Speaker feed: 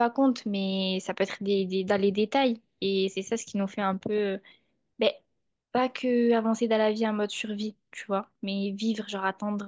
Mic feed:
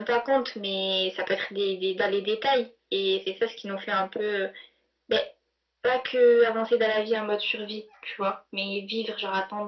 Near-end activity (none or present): none